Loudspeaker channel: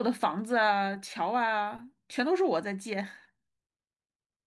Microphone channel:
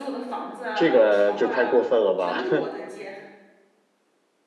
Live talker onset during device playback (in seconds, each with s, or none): 0.7 s